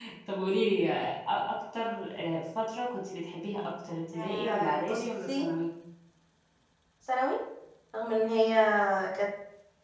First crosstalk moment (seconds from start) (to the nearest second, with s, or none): 4 s